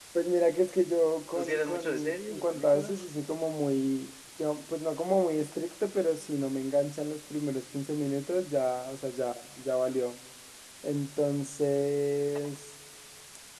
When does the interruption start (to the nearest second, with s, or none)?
1 s